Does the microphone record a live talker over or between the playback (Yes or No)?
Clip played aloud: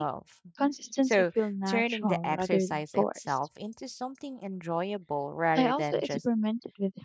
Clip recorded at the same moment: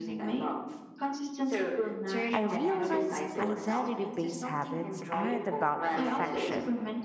Yes